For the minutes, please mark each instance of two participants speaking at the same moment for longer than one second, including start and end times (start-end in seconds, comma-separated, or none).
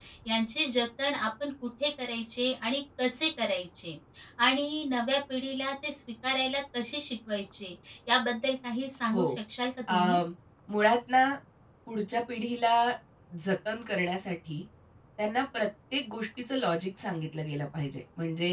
none